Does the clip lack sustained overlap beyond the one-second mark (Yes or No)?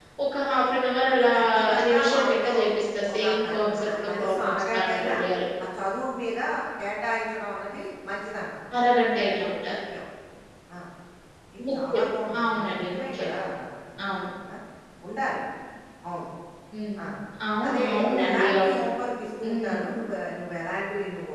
No